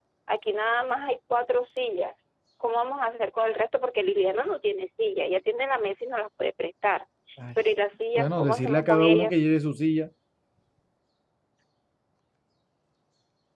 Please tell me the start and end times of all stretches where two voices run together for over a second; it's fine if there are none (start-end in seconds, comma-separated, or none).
8.2-9.4